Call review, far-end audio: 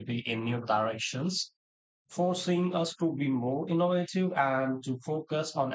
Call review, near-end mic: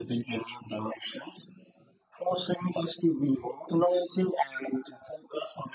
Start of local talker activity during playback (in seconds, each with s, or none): none